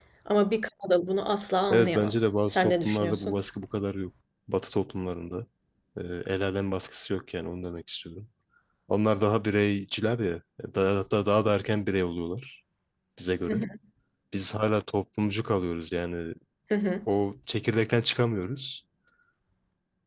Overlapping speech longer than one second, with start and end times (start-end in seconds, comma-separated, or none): 1.7-3.4